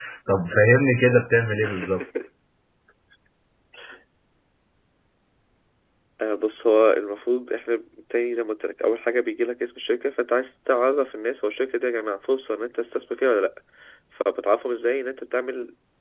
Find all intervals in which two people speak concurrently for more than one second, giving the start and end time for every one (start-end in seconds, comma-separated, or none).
none